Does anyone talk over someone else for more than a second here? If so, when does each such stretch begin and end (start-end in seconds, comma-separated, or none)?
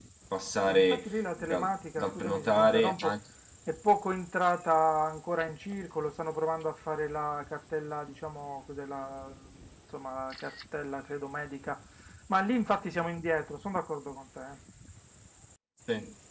0.7-3.2